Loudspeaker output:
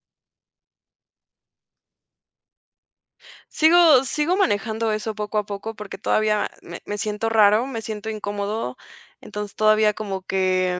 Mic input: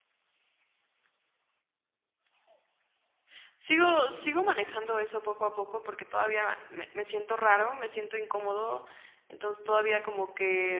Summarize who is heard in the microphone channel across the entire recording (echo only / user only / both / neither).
echo only